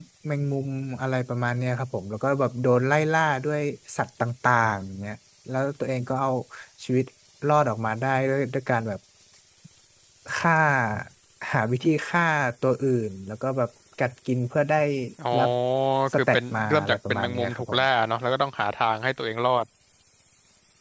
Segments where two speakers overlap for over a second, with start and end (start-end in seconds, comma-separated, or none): 16.1-17.6